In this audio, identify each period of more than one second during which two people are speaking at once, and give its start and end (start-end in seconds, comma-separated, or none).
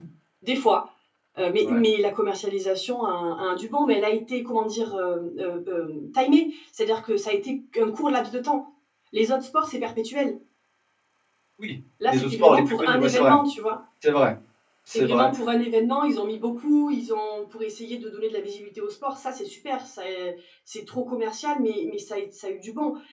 12.1-13.4